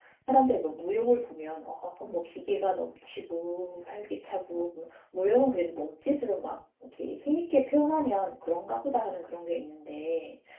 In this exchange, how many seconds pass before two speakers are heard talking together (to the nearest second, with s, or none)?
none